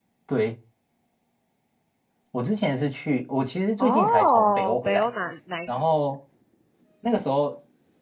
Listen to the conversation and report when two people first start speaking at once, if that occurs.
3.8 s

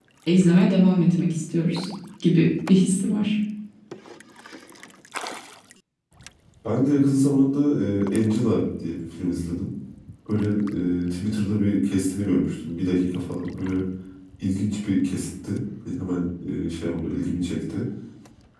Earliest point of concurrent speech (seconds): none

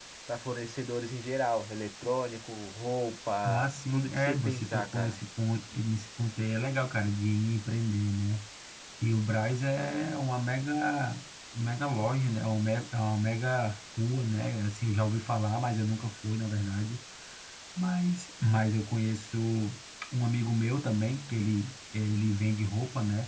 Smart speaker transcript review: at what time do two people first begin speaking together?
3.5 s

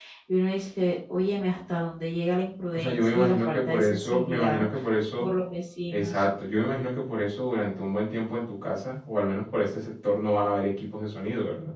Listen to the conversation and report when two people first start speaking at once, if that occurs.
2.7 s

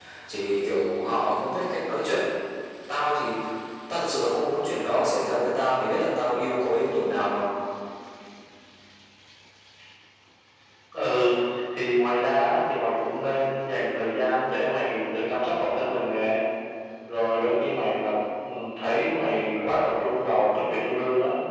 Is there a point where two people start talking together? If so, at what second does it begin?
none

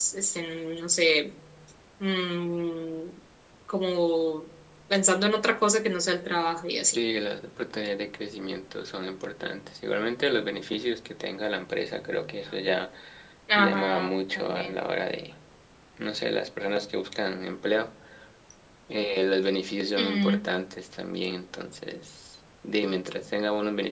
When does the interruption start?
13.6 s

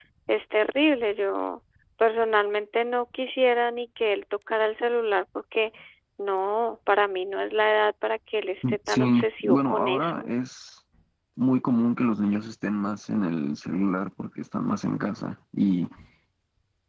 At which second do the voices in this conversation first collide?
8.9 s

